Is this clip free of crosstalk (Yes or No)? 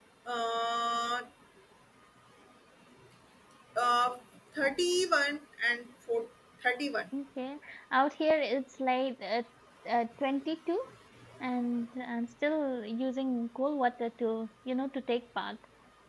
Yes